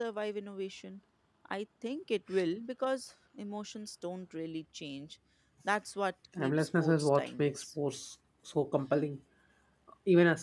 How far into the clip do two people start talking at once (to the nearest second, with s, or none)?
6 s